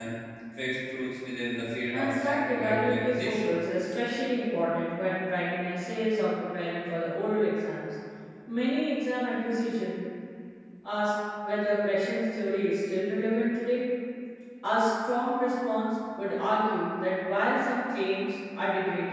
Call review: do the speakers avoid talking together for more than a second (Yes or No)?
No